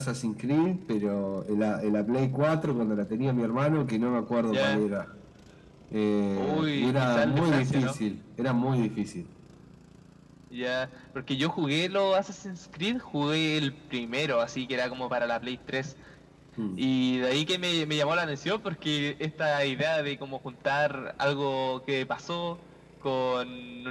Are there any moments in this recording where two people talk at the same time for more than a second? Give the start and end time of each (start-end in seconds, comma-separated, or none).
6.4-8.0